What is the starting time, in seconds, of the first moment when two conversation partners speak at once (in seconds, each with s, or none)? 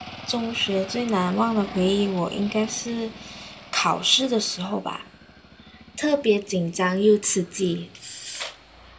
none